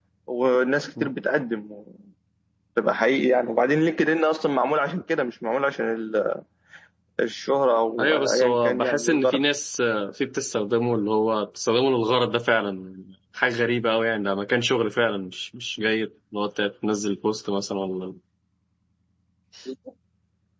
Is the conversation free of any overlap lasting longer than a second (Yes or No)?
No